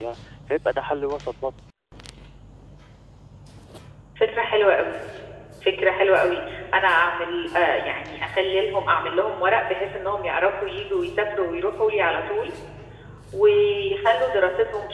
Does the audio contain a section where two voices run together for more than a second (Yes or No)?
No